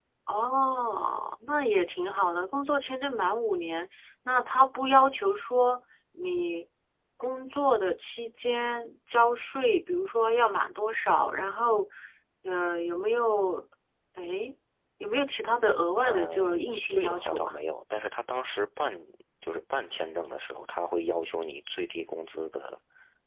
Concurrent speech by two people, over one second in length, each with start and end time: 16.0-17.6

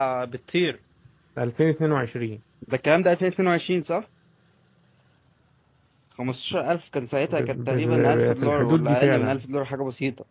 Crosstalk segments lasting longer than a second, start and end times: 7.3-9.4

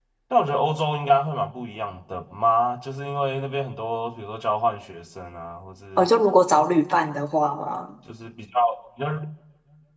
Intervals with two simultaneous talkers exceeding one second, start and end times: none

